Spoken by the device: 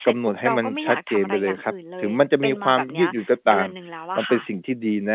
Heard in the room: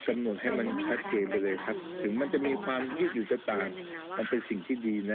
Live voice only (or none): เวลาการเดินทางหรือการนอนน่ะค่ะ